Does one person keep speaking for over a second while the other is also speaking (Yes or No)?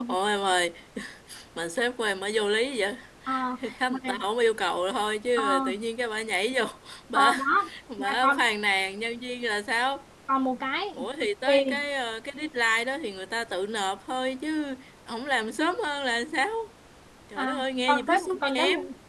Yes